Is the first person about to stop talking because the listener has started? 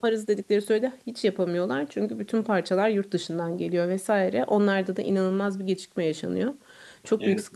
No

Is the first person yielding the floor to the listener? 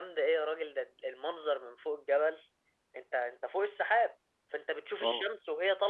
No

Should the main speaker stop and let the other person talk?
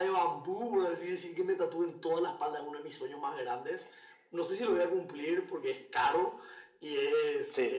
No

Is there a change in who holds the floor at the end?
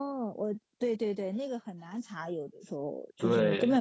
No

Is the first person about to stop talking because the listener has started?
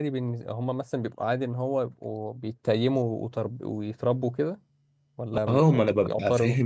Yes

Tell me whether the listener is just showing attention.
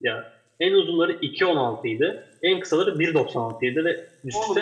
No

